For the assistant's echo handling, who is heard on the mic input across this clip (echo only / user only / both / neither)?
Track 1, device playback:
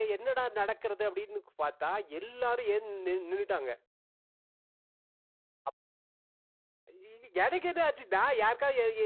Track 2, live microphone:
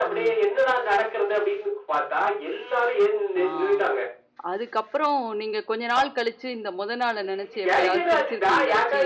both